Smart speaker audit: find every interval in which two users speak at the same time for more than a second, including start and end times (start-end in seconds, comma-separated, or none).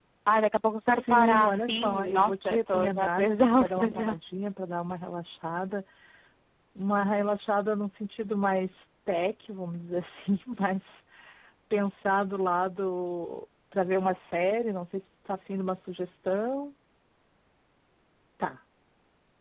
0.9-4.2